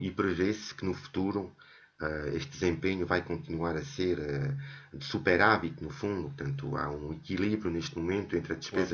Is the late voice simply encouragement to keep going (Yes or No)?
Yes